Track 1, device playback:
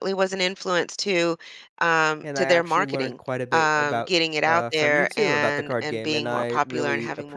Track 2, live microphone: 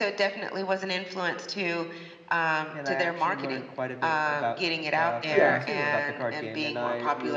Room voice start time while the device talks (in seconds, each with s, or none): 5.3 s